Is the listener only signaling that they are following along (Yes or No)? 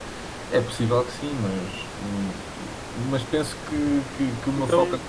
Yes